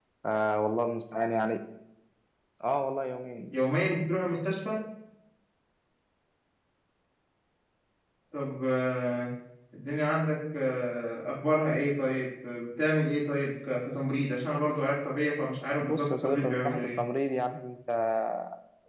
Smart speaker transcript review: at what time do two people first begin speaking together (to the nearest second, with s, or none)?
16 s